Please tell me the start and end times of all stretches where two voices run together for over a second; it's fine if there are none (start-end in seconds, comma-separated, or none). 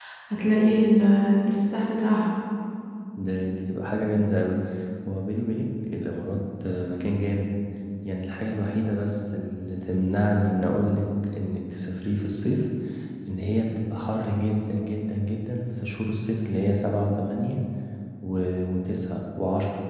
none